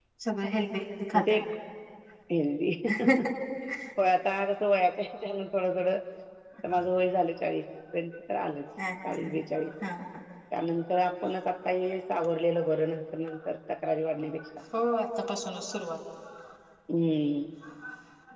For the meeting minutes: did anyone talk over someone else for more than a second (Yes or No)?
No